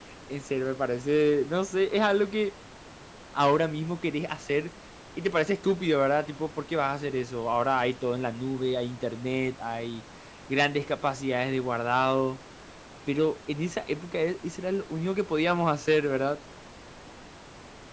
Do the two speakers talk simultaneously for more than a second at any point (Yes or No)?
No